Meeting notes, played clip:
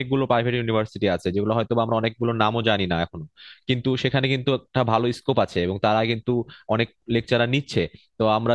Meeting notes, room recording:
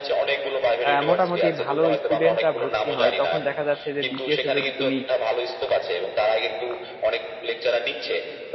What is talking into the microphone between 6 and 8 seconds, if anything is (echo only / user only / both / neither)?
echo only